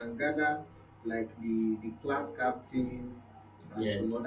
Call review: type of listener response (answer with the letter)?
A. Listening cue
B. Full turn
A